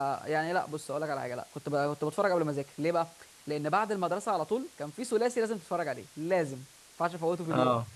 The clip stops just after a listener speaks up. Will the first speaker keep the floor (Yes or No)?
Yes